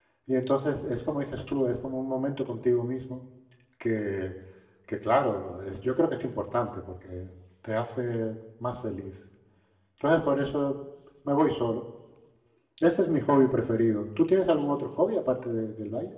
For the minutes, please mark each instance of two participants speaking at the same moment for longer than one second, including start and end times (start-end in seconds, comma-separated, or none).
none